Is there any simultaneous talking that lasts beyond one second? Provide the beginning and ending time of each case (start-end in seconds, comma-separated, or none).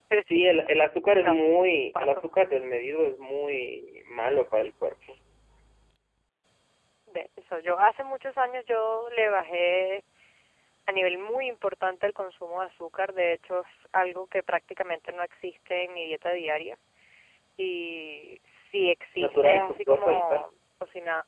19.2-20.4